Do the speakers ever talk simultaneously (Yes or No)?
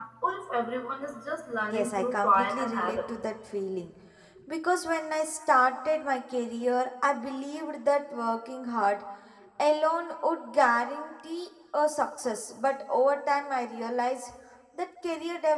Yes